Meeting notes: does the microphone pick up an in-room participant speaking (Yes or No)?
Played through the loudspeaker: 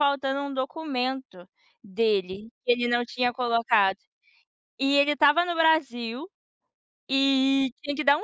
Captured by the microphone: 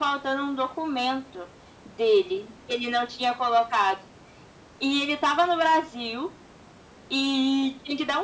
No